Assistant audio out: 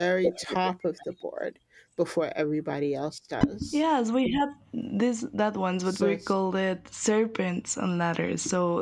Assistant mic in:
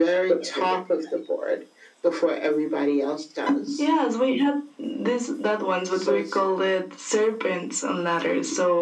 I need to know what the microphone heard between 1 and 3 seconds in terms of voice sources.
echo only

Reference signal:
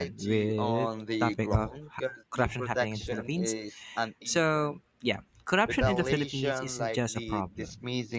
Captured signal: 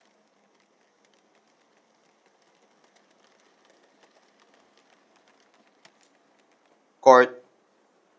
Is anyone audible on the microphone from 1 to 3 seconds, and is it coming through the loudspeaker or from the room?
neither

